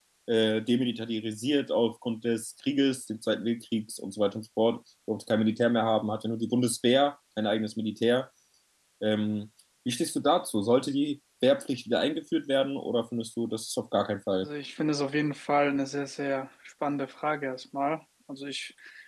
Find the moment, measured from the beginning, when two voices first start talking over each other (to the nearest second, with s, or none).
none